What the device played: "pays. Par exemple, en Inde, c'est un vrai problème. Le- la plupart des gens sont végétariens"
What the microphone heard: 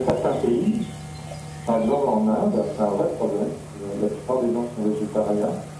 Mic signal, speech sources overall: echo only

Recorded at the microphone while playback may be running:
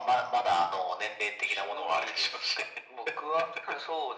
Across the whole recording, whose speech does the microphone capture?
echo only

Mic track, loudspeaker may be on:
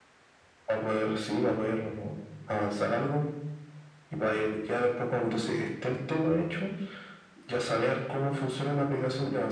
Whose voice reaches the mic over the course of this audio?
echo only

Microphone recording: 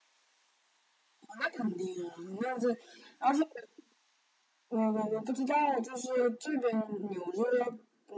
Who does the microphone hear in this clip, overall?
echo only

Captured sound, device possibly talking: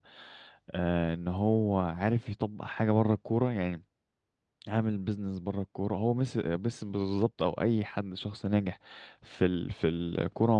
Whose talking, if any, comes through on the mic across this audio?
user only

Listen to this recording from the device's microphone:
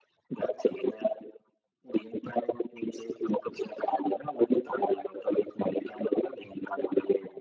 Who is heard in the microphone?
echo only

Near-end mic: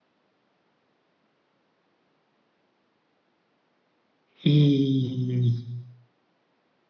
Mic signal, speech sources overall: user only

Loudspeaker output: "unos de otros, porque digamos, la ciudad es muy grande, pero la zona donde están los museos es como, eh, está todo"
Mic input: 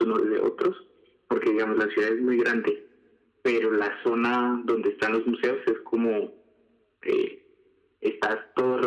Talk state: echo only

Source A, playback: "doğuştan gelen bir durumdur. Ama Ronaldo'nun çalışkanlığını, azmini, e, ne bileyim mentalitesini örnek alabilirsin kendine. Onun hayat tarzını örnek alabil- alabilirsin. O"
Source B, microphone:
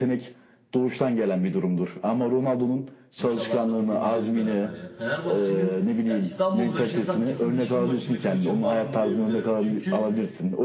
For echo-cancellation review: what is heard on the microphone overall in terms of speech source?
both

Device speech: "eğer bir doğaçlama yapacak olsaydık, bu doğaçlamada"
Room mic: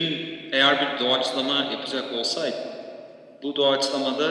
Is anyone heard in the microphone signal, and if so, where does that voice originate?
echo only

